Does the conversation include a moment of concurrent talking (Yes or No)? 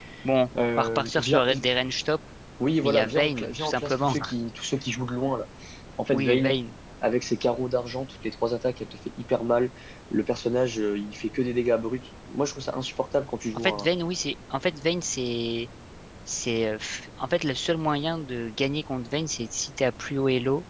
Yes